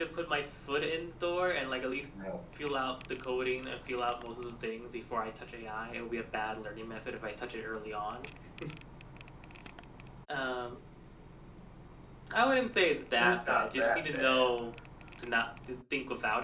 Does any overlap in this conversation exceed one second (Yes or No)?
Yes